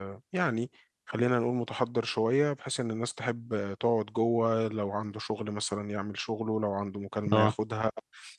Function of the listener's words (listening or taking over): listening